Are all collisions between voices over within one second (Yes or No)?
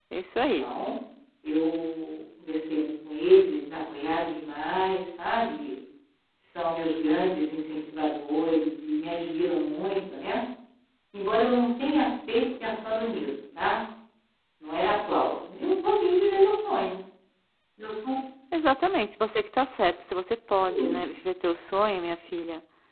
Yes